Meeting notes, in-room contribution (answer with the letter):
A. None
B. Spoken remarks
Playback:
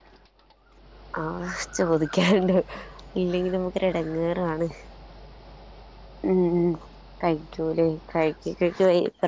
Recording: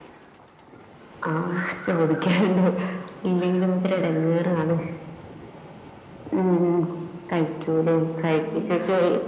B